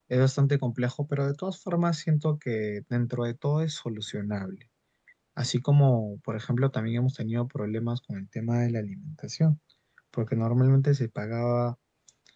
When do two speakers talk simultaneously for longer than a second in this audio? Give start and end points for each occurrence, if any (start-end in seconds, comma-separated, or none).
none